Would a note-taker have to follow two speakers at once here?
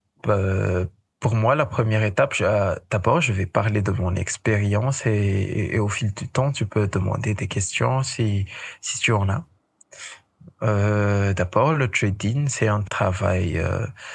No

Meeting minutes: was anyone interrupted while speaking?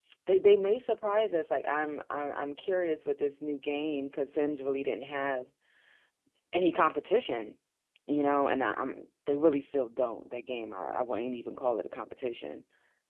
No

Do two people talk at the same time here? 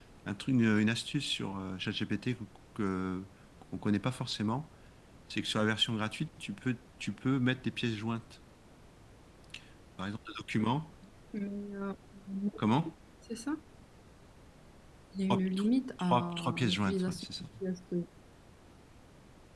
Yes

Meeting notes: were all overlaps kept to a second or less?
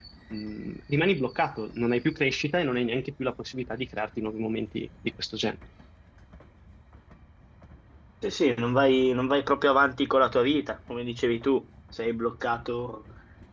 Yes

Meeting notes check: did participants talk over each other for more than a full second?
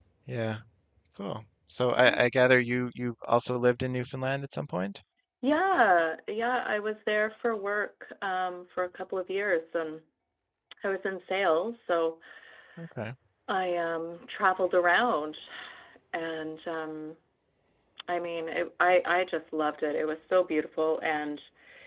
No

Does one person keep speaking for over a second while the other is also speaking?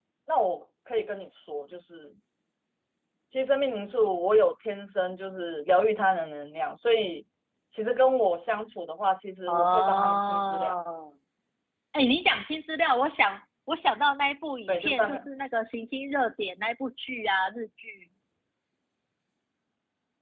Yes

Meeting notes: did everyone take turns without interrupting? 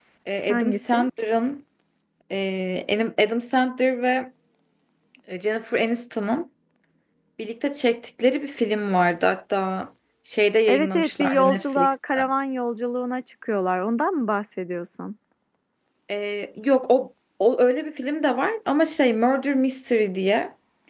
No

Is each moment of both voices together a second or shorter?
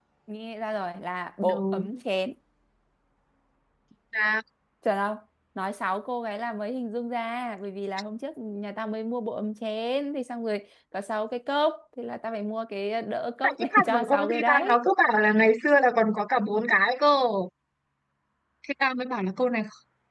No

